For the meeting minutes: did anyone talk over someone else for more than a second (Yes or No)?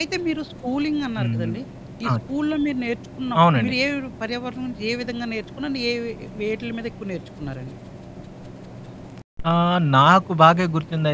No